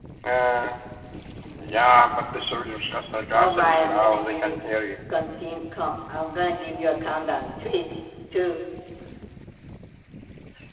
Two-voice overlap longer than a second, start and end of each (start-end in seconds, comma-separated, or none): 3.3-4.5